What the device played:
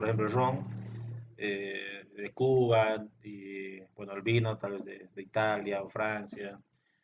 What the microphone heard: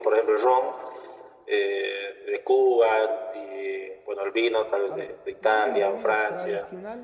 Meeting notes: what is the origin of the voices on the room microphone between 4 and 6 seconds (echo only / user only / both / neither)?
both